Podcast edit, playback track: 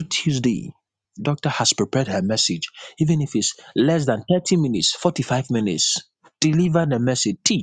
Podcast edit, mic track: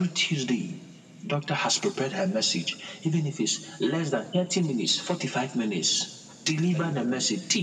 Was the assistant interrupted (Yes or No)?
Yes